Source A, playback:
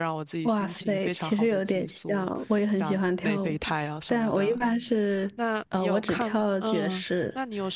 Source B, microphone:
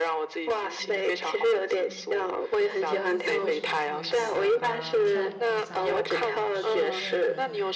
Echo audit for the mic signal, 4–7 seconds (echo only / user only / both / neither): both